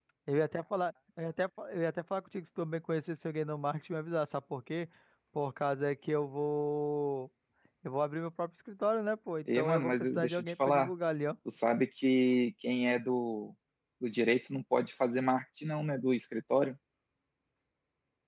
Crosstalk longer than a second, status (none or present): present